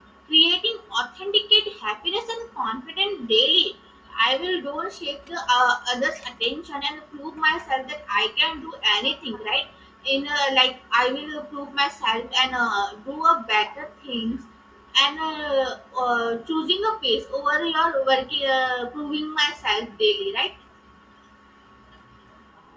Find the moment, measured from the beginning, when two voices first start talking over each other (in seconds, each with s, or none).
none